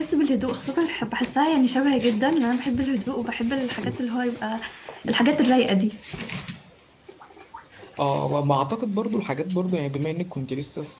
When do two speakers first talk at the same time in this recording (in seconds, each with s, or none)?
none